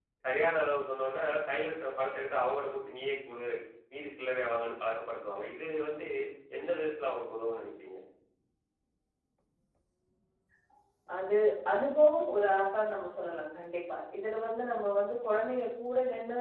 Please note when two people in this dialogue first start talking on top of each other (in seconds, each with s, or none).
none